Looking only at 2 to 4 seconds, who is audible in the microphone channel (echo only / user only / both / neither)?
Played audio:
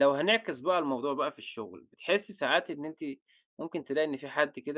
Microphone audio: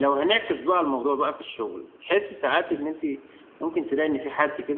echo only